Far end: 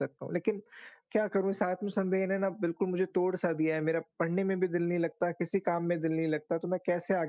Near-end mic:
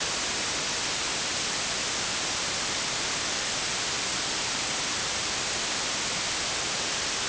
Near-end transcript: none

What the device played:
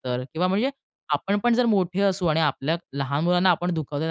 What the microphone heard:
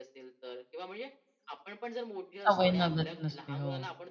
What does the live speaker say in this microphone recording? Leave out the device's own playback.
सवय नगद नसते. हो.

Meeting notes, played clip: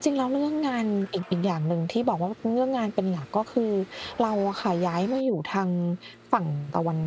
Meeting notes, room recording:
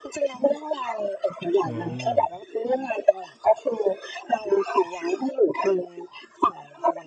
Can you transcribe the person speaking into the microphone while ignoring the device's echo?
อ๋อ

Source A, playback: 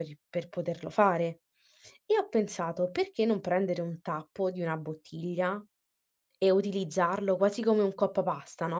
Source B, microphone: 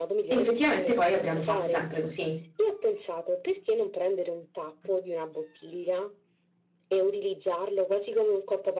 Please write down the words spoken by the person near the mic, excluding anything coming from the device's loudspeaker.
Effettivamente poi abbiamo fatto sempre così.

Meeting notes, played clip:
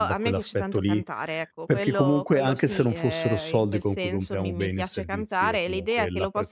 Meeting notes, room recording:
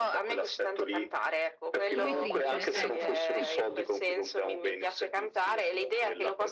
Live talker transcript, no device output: Fruitrice, ecco. Sì.

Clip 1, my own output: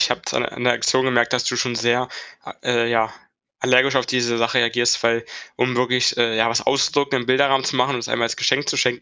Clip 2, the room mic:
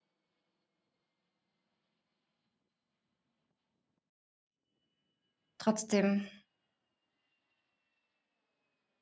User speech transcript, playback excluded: Trotzdem

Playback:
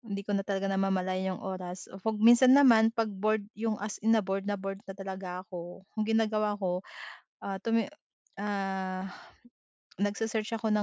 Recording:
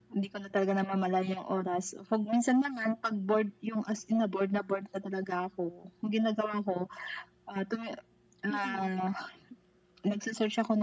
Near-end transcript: Mm.

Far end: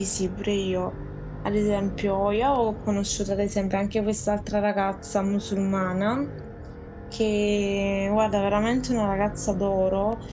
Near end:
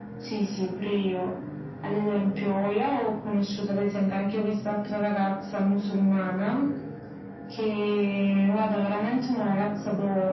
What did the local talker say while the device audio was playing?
none

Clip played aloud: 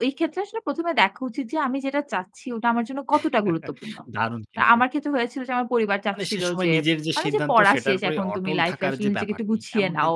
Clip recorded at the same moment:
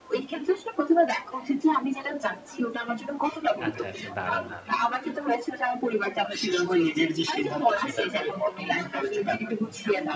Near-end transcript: আচ্ছা, আচ্ছা। দারুন, দারুন।

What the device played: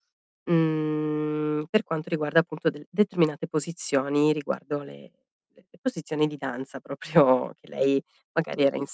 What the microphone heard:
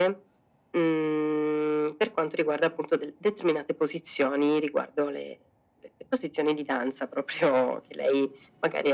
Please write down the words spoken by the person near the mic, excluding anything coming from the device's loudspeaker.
none

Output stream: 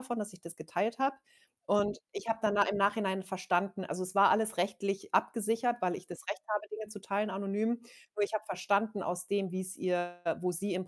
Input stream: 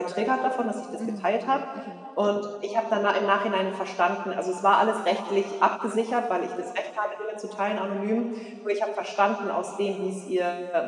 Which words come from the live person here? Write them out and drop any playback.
Mhm, mhm.

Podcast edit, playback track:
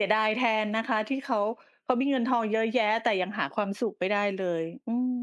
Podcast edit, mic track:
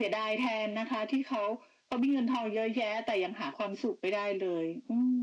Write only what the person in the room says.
none

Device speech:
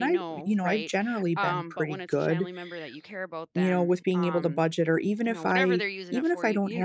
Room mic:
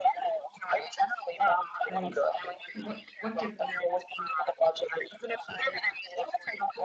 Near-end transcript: Right. And what what could

